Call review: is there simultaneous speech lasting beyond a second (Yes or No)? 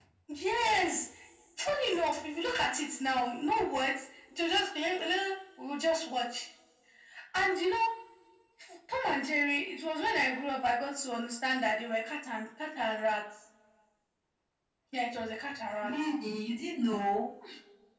No